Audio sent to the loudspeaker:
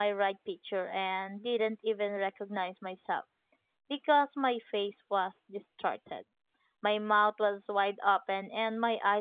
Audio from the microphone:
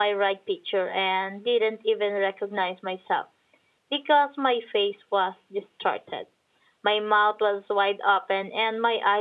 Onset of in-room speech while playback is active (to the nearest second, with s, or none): none